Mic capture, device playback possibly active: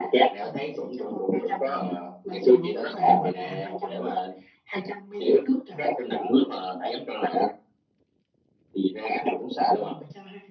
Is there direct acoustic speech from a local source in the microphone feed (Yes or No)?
Yes